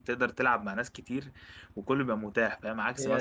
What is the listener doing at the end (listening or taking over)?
listening